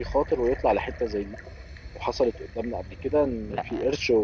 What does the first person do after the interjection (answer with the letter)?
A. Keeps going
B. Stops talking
A